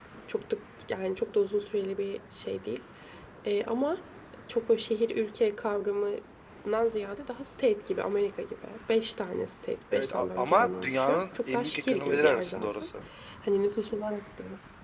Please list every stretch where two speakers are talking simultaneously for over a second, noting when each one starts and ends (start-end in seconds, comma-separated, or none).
9.9-12.9